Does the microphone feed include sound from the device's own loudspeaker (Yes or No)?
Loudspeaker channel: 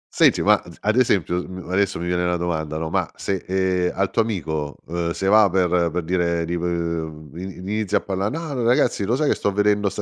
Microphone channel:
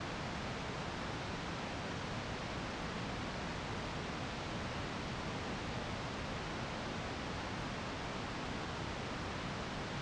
No